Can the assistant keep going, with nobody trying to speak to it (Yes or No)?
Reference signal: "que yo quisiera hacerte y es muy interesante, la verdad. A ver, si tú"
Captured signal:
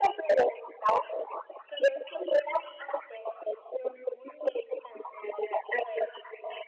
Yes